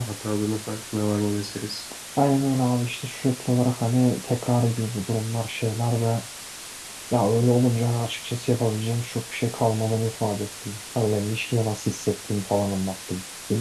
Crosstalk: none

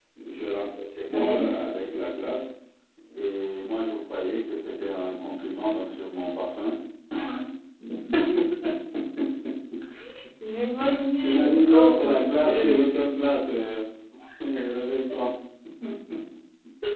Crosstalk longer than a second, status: present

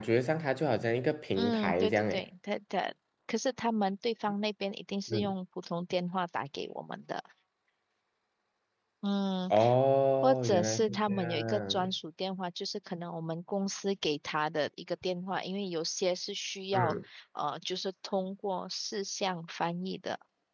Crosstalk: present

